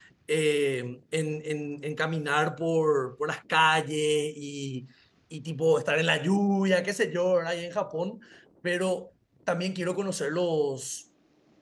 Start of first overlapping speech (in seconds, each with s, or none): none